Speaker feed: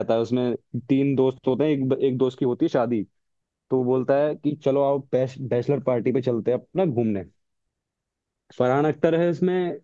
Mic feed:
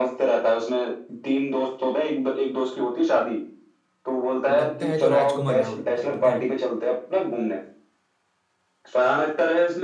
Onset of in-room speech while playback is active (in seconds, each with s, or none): 4.5 s